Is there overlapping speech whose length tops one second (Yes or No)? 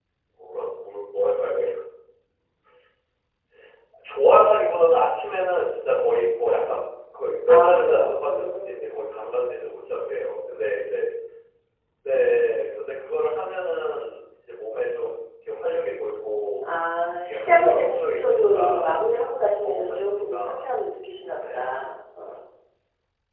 Yes